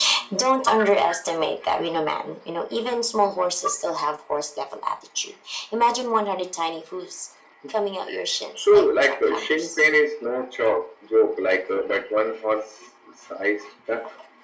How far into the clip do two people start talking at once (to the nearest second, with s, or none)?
9 s